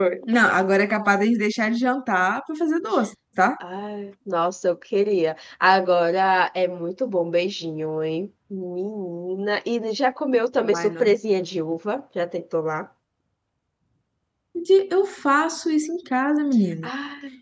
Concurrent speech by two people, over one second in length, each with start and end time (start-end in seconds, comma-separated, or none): none